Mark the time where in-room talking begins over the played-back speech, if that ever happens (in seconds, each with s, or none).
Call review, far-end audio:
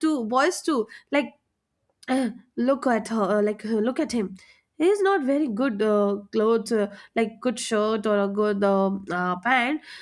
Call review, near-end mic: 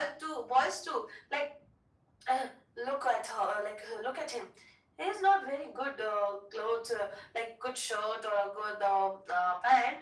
none